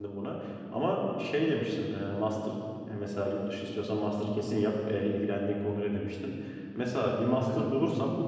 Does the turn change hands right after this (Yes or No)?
No